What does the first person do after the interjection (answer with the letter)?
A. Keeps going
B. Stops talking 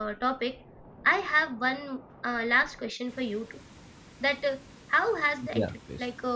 A